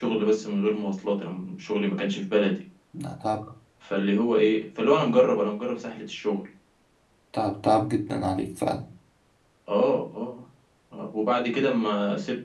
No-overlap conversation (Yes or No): Yes